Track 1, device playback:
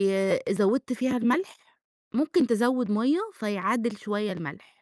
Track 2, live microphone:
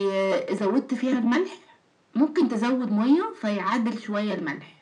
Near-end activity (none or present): none